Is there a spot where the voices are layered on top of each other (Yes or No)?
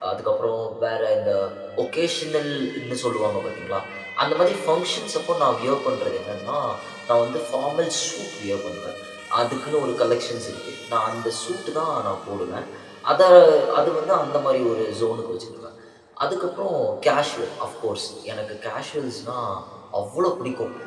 No